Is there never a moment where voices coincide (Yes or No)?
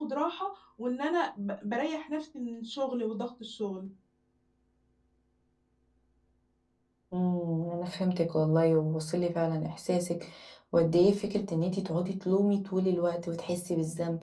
Yes